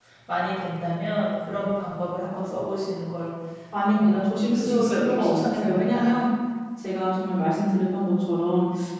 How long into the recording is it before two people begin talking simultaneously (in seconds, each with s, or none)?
3.9 s